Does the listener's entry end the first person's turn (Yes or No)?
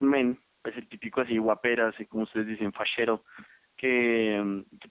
No